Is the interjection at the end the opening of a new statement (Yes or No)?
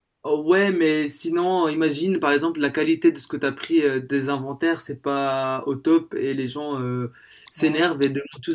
No